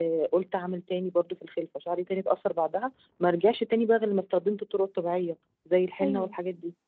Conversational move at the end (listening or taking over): taking over